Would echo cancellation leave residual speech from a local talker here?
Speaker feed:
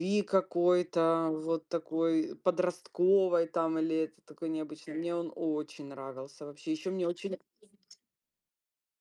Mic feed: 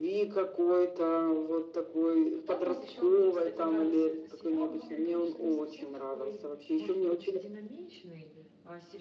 Yes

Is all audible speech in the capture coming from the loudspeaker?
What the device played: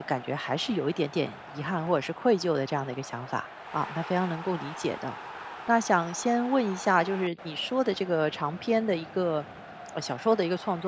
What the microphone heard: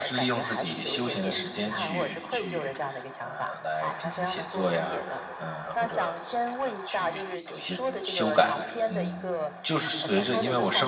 No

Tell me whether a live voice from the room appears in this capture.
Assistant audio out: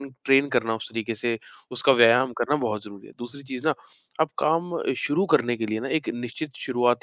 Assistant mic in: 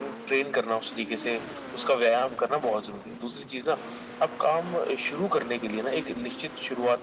No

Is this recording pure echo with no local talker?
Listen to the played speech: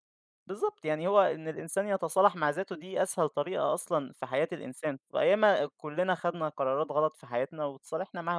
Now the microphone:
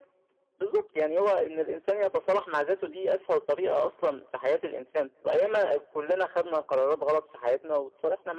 Yes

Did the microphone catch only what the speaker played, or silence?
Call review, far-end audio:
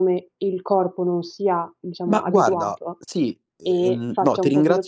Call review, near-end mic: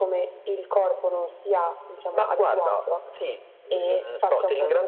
Yes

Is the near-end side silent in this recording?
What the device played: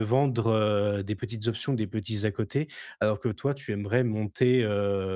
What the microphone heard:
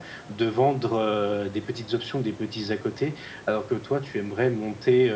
Yes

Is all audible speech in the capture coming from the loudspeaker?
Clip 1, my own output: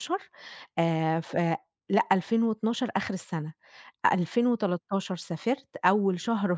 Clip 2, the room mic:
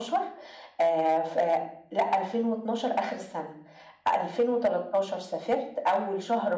Yes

